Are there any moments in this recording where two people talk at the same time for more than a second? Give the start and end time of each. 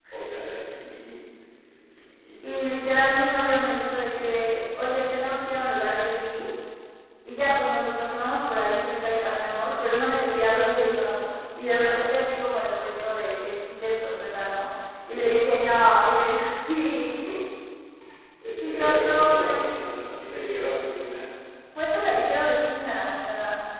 18.6-20.0

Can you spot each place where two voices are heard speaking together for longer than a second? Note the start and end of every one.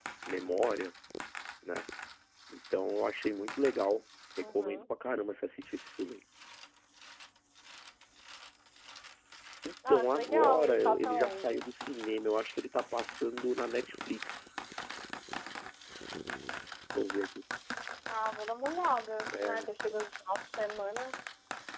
9.9-11.6

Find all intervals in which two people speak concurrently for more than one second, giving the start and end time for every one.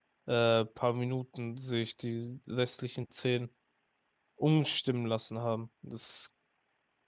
none

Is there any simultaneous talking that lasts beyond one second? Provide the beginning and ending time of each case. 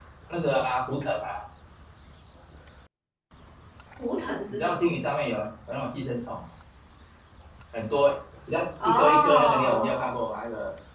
8.8-10.1

